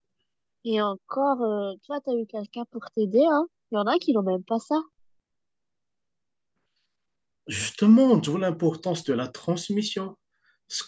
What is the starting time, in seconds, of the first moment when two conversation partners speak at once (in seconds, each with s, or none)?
none